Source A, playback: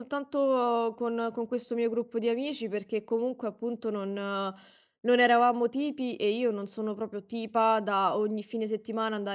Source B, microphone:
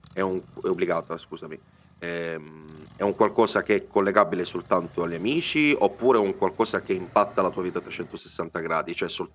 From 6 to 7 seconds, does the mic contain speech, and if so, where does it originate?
user only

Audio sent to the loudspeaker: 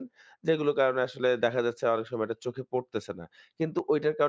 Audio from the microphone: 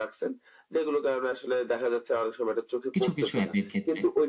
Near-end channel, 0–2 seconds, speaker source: echo only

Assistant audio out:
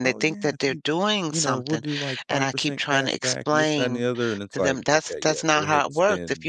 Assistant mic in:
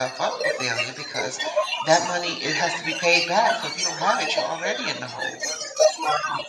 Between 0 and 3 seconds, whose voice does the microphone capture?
both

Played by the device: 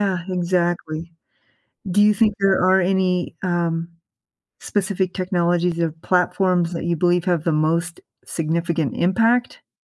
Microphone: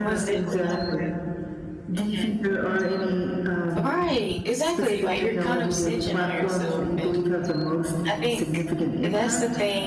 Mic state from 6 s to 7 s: both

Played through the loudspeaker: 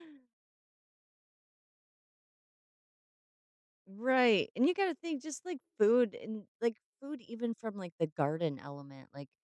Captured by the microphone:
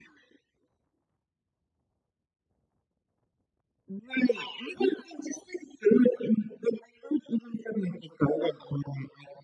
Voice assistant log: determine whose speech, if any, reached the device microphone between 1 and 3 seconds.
neither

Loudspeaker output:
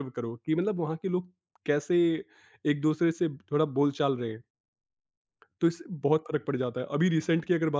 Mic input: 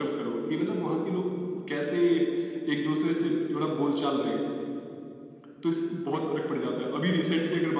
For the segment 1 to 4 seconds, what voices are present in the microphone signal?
echo only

